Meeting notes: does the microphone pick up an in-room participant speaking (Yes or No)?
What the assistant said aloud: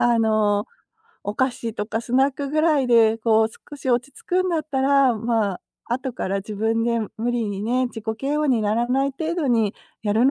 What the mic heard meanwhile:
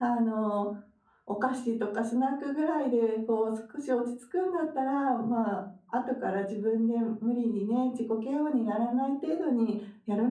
No